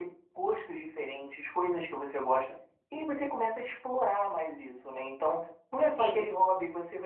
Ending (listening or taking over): listening